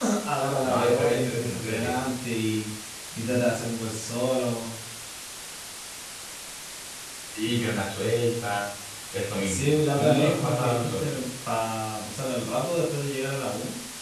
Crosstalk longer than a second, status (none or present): present